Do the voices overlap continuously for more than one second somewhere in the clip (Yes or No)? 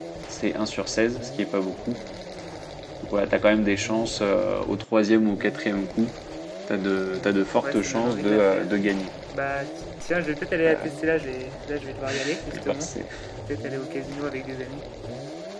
Yes